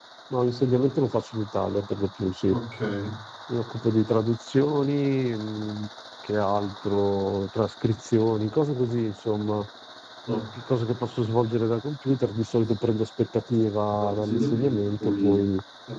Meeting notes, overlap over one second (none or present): present